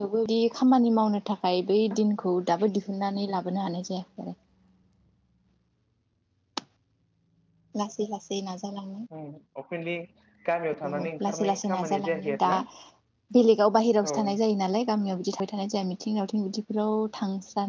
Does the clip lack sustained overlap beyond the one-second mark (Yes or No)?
No